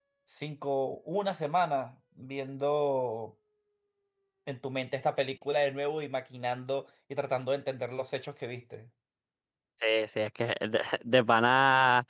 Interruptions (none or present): none